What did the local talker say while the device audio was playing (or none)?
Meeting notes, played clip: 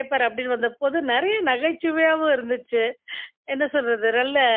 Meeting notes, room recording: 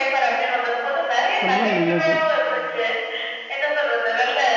ரொம்ப நல்லது.